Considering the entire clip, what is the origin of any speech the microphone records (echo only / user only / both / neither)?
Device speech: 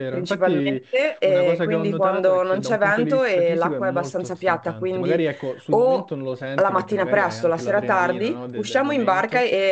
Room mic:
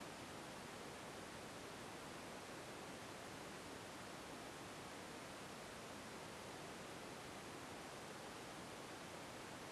neither